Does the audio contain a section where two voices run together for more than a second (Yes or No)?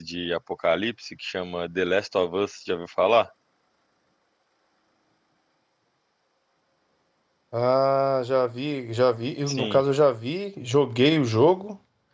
No